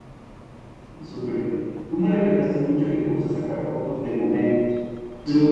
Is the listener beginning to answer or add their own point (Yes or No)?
No